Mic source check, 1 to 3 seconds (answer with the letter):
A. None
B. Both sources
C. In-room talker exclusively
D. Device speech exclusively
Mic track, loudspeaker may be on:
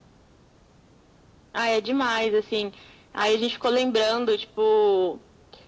D